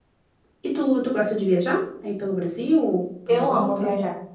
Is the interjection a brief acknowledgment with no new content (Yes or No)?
No